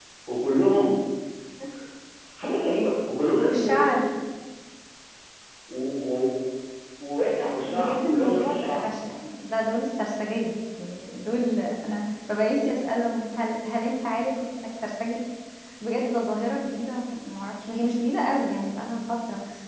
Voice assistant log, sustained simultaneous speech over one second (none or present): present